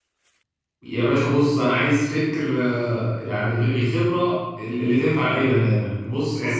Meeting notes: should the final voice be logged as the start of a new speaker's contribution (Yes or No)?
No